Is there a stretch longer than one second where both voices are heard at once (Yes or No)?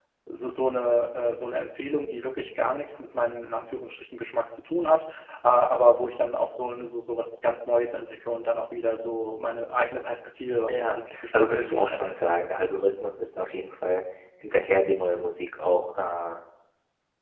Yes